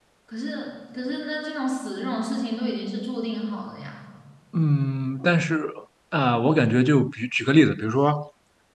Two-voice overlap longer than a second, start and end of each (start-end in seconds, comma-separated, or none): none